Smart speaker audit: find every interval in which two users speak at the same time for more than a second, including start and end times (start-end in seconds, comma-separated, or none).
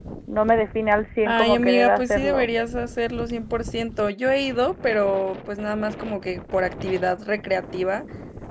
1.2-2.4